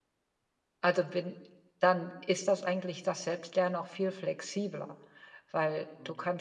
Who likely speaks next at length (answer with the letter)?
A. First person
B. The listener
A